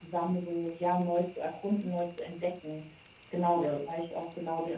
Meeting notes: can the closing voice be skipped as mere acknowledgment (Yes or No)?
Yes